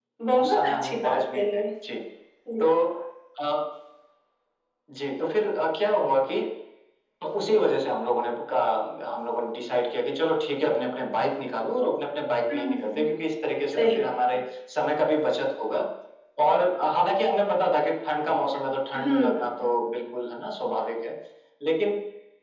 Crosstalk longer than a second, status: present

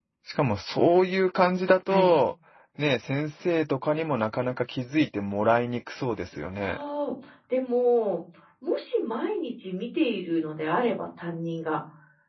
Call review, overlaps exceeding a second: none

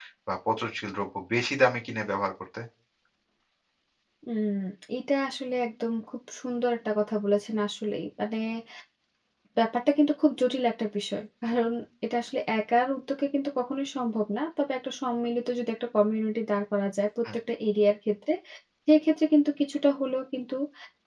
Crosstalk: none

